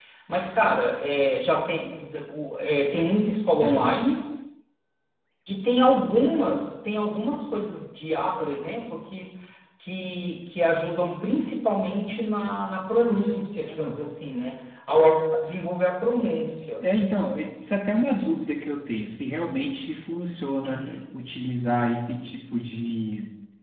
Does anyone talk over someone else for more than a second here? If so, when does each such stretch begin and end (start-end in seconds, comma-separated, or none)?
none